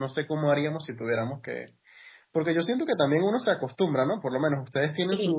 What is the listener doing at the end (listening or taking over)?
listening